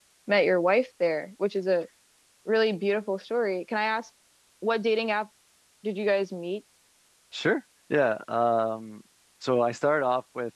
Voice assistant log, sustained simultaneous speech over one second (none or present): none